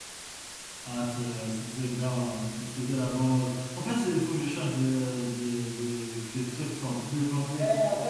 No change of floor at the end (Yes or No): No